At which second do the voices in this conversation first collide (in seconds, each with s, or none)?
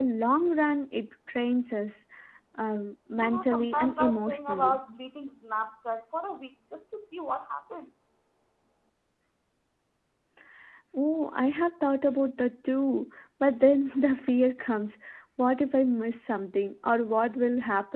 3.1 s